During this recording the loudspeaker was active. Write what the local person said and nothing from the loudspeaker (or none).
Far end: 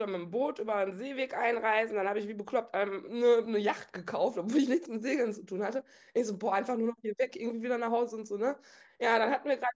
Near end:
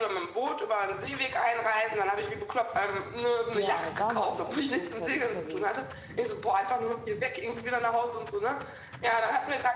Ja, da war ich eigentlich großteils unterwegs.